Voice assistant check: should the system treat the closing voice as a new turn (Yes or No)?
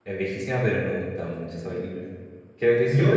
Yes